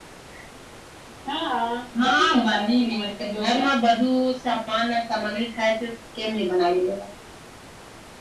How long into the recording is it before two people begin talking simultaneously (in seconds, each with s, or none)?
2.0 s